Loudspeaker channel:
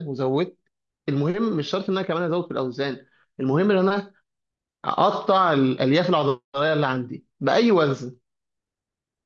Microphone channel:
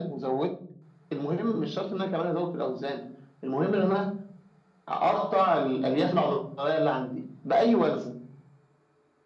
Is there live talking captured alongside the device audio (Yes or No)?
No